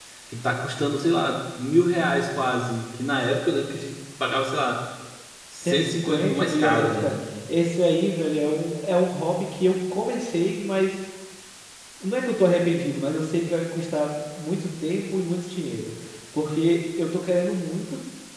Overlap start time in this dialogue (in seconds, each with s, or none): 5.6 s